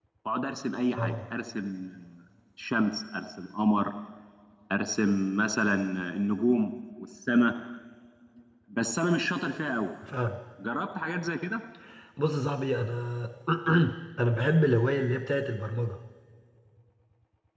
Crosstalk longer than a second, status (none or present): none